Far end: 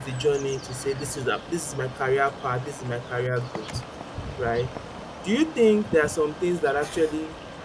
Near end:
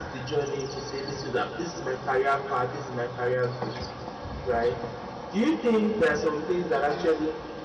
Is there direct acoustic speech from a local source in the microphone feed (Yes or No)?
No